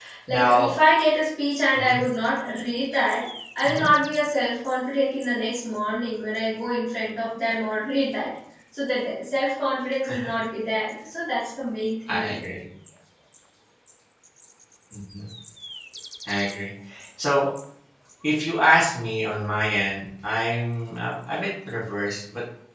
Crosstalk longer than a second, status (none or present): none